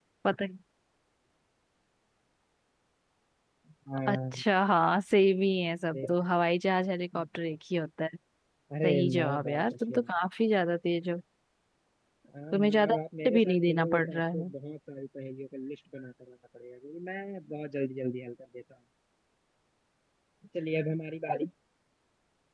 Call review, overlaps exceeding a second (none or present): present